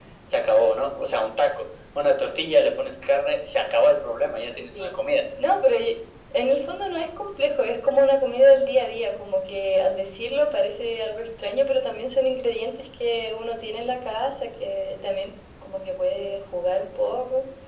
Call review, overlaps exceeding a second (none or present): none